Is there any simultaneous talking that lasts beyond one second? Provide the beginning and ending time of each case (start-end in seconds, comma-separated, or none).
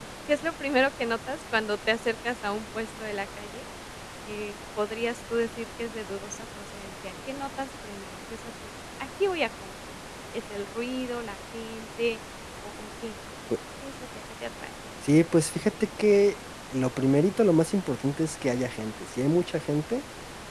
none